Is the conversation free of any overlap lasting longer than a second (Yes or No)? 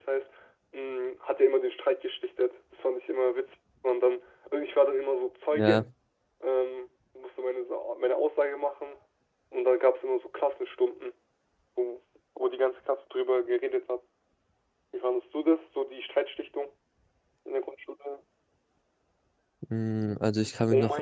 Yes